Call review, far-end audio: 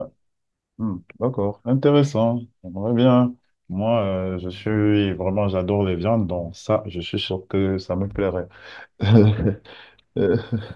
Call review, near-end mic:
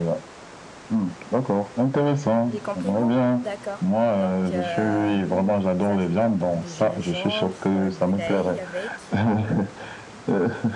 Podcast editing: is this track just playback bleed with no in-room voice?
No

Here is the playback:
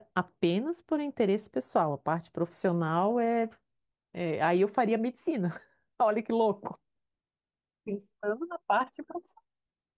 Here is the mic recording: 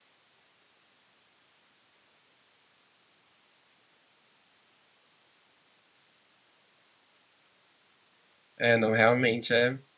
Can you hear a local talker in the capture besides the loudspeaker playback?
Yes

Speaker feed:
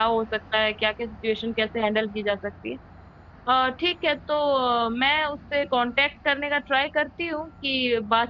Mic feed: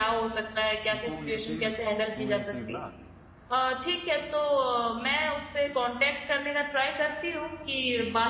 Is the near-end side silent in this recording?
No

